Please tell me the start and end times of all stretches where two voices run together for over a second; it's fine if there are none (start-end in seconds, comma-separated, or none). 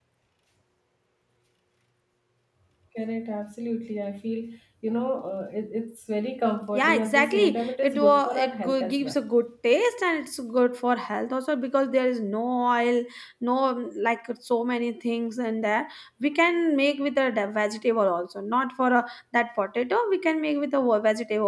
6.7-9.2